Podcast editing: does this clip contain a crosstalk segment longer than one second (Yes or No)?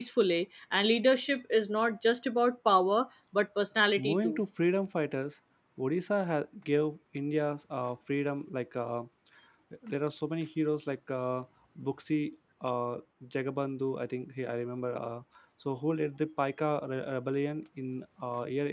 No